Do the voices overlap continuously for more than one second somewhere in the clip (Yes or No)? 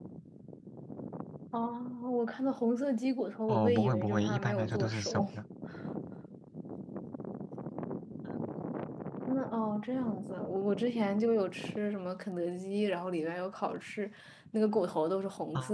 Yes